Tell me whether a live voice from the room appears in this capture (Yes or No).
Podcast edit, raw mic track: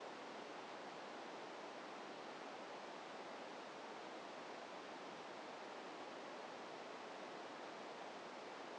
No